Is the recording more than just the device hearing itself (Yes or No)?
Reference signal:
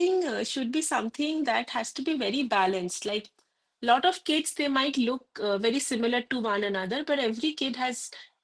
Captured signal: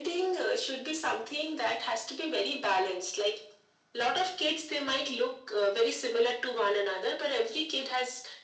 No